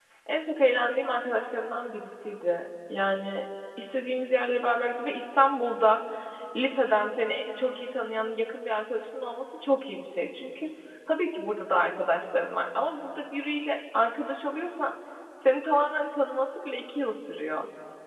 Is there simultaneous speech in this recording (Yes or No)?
No